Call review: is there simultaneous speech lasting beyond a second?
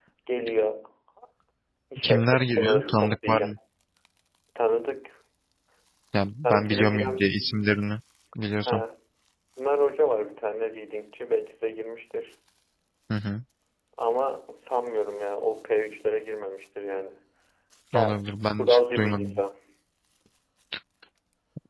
Yes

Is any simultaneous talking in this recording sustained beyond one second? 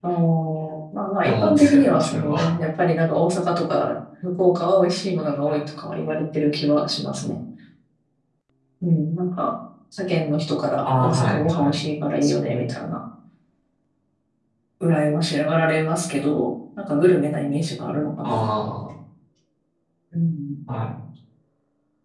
Yes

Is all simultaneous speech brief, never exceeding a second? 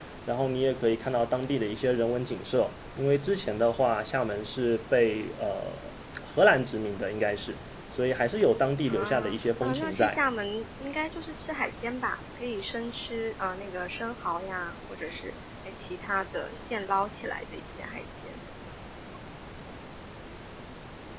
No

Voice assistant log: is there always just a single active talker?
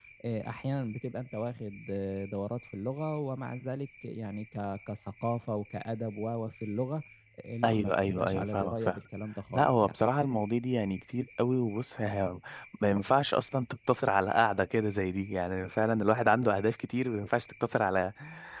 No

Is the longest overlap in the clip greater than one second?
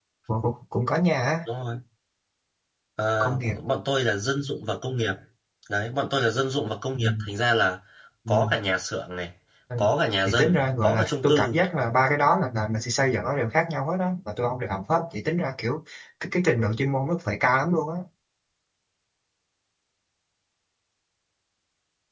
Yes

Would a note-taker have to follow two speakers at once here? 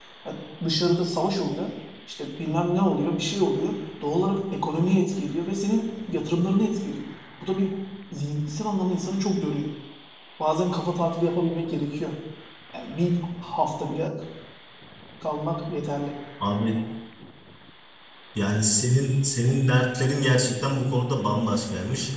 No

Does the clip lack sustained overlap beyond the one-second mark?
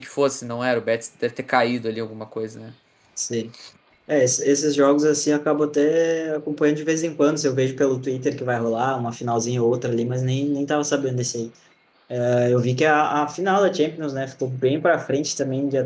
Yes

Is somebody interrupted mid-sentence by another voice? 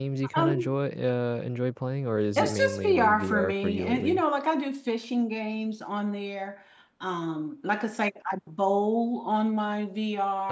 Yes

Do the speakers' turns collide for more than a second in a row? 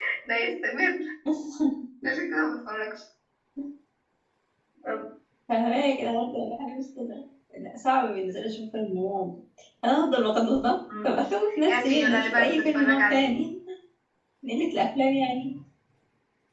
Yes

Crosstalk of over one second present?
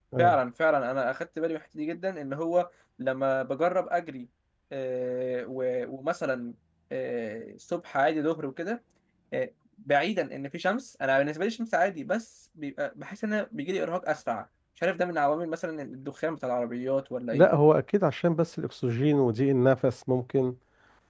No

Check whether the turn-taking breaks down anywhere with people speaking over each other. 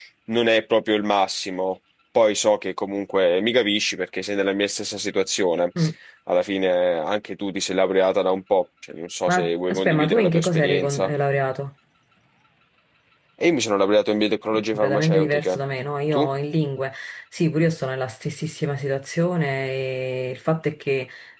Yes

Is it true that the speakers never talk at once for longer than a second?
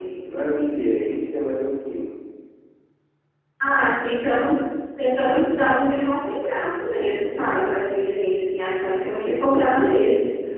Yes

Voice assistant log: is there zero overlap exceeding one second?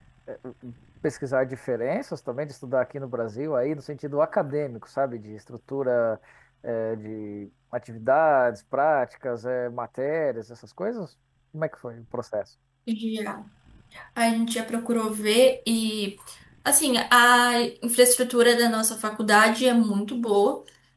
Yes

